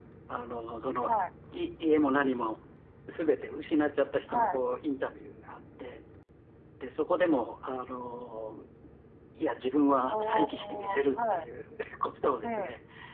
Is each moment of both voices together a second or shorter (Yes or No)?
No